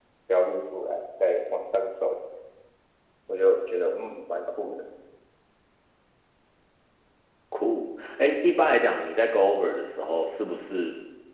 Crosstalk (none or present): none